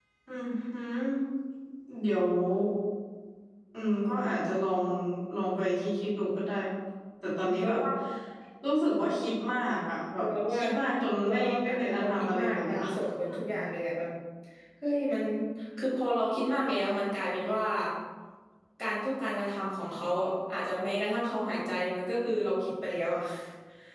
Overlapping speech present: Yes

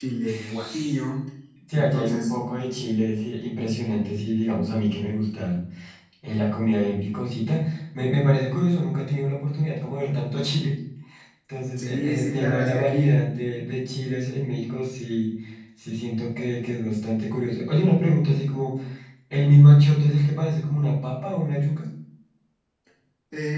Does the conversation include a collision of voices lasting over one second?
Yes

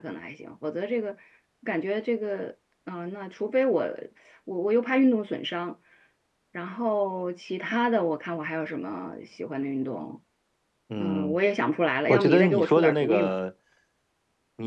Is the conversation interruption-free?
No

